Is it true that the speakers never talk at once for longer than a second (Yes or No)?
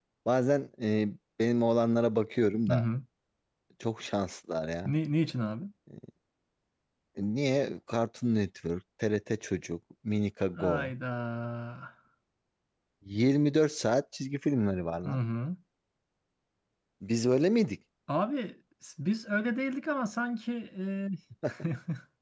Yes